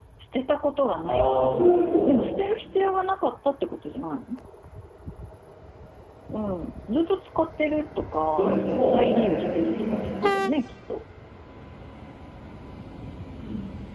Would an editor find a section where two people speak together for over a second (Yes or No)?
Yes